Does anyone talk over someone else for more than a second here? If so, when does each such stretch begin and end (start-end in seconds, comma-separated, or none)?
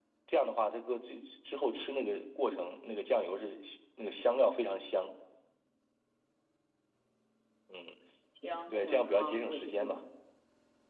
8.7-10.0